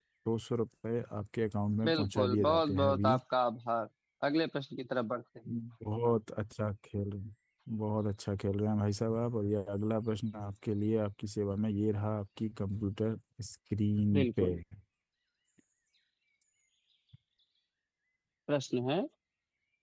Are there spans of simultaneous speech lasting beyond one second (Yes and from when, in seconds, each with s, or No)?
Yes, from 1.8 s